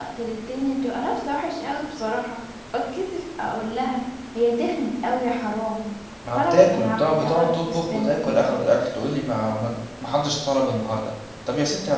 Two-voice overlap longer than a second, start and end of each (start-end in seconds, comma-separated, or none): 6.3-8.3